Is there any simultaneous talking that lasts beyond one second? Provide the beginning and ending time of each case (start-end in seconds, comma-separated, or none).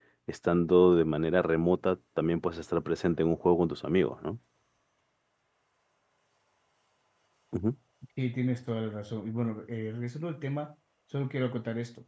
none